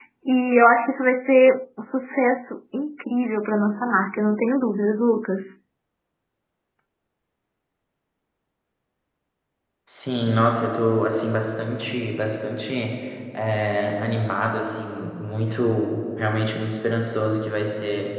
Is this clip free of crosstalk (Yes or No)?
Yes